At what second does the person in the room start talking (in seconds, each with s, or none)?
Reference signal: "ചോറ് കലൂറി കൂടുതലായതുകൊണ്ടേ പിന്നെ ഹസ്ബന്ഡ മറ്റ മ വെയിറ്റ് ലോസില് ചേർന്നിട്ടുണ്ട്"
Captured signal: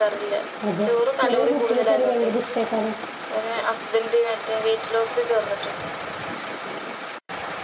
0.7 s